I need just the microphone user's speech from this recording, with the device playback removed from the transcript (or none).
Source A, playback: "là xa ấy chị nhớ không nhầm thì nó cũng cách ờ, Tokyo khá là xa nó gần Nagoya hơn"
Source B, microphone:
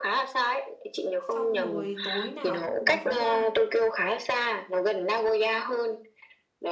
Xong rồi tối nào cũng có bắn pháo hoa.